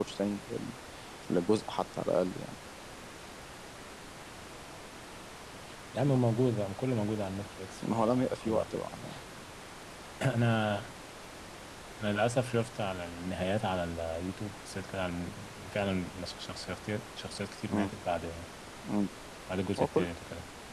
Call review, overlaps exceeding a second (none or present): present